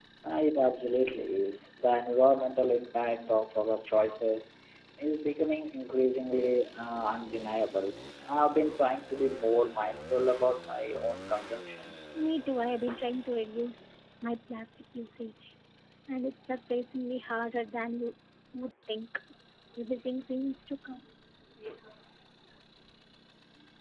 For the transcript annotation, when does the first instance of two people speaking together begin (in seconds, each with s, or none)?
none